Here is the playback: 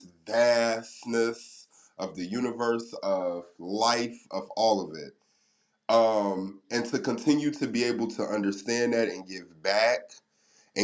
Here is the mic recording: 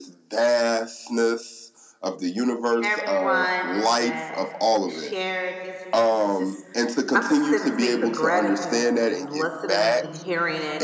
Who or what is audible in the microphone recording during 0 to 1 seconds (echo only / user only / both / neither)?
echo only